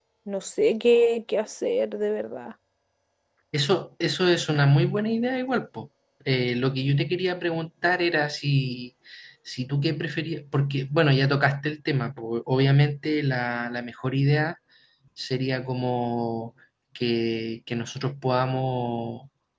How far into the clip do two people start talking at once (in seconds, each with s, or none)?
none